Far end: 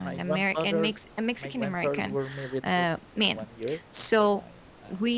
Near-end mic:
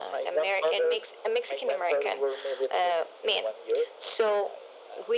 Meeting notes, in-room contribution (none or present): none